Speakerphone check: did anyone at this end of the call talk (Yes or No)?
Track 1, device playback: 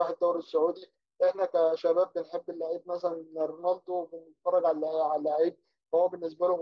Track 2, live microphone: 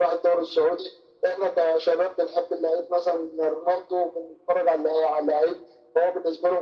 No